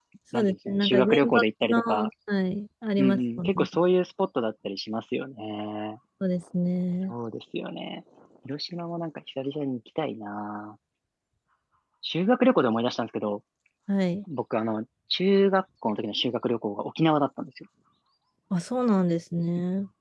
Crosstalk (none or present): present